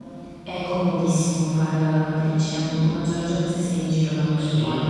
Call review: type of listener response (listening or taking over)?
taking over